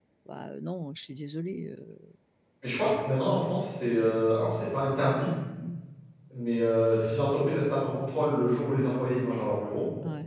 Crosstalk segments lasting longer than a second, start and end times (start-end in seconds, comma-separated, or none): none